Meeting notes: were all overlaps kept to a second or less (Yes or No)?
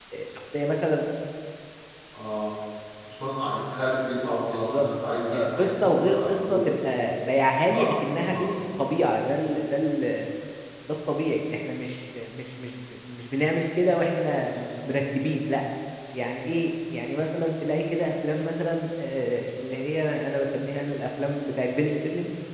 No